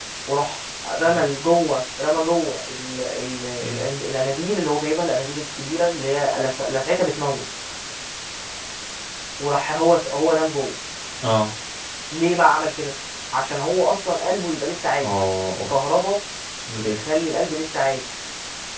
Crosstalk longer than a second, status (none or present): none